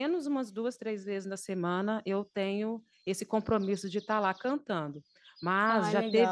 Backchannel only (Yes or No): Yes